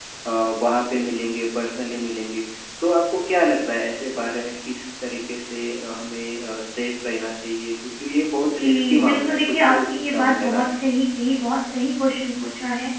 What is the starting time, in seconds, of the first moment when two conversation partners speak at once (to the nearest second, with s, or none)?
9 s